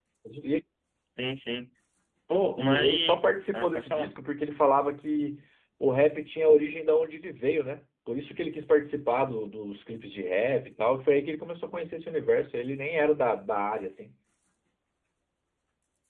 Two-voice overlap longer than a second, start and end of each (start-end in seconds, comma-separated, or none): 2.6-4.1